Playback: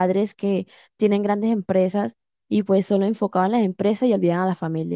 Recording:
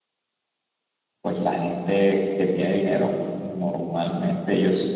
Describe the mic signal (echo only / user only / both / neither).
user only